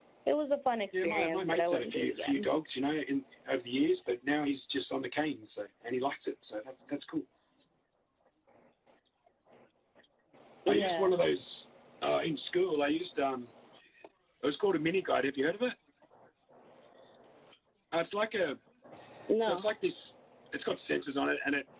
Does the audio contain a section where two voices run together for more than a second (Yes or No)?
Yes